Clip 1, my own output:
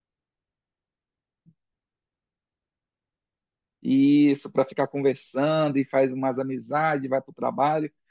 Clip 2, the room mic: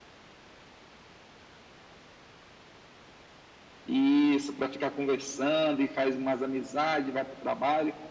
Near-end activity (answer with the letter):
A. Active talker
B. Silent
B